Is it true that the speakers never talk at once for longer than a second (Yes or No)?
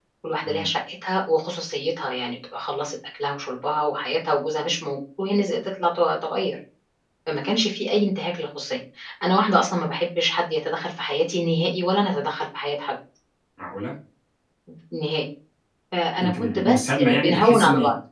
No